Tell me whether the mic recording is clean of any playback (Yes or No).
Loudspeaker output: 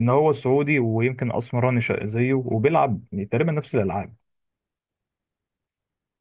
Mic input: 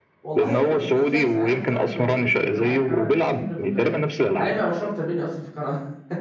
No